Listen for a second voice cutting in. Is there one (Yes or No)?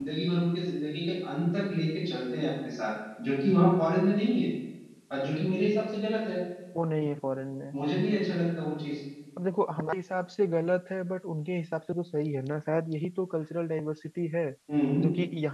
No